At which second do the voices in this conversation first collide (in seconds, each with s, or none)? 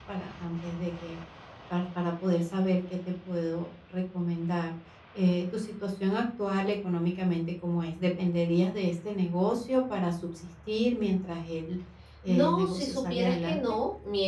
12.3 s